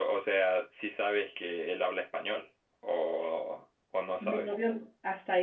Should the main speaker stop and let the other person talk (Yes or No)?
Yes